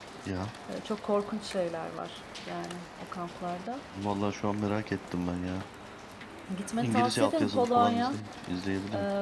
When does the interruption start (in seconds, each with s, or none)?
6.8 s